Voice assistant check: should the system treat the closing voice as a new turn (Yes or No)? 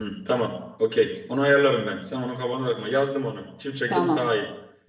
Yes